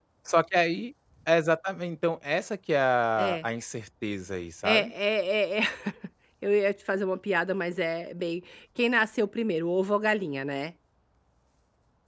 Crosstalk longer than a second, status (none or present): none